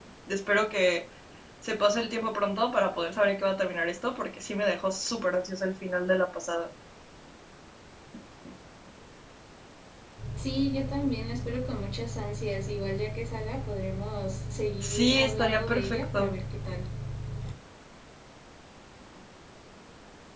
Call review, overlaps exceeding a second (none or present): present